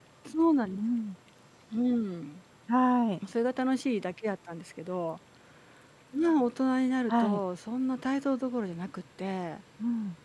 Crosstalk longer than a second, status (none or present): none